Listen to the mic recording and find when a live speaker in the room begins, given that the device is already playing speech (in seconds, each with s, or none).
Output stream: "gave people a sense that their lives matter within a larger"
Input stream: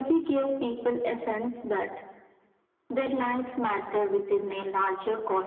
none